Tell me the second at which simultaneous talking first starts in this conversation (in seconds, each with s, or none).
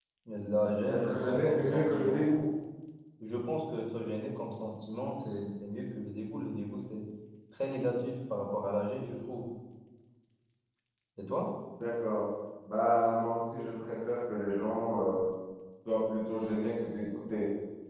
0.9 s